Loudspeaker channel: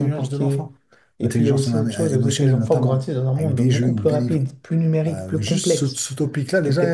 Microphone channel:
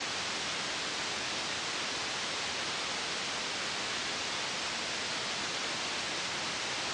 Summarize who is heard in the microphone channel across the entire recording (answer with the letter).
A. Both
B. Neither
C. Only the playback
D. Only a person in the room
B